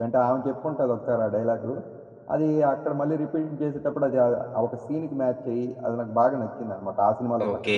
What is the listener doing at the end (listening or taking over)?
taking over